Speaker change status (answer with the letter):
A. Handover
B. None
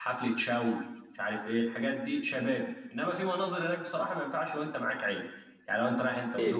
B